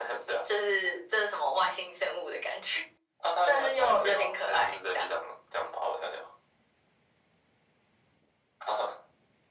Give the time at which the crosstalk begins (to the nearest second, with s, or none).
3 s